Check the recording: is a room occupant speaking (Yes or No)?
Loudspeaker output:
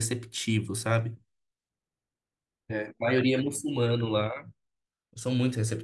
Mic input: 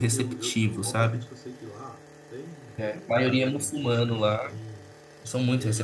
Yes